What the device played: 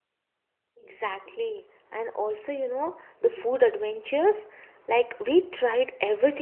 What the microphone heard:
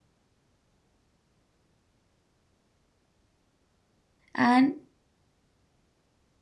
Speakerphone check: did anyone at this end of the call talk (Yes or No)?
Yes